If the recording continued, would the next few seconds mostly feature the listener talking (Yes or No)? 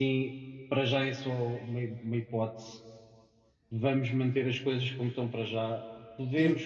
No